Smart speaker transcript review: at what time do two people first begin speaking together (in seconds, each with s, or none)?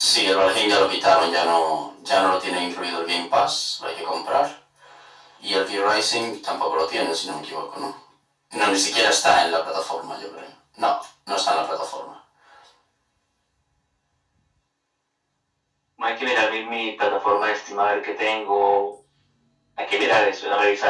none